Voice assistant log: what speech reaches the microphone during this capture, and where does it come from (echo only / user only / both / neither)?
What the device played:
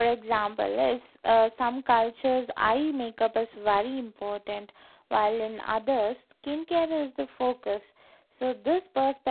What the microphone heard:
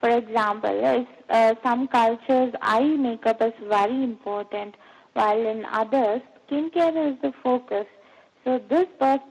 echo only